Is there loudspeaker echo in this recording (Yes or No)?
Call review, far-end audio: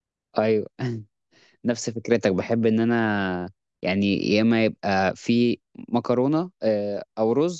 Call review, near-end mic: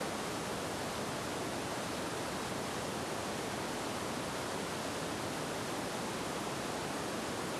No